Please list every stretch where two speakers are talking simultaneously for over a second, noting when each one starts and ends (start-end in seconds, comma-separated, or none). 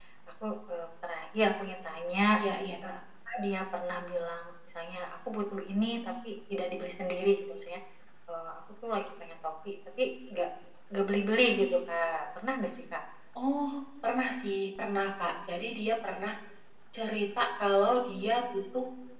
none